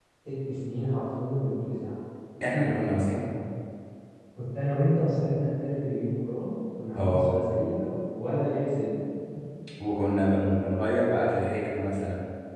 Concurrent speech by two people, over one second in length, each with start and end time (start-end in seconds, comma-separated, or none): none